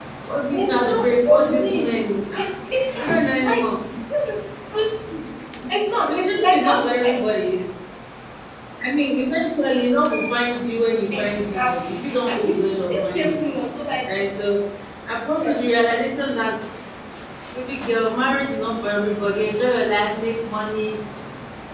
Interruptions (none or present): present